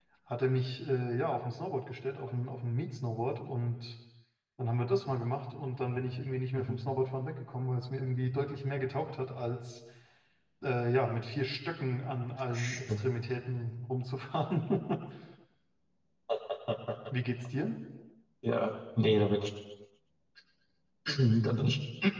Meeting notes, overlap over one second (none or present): none